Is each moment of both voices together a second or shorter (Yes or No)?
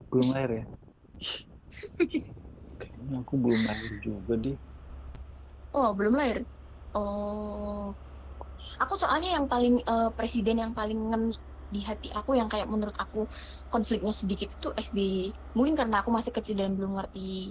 Yes